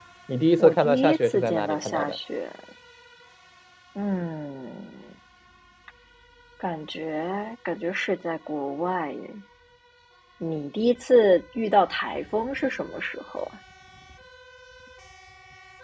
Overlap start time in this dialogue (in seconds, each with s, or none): 0.6 s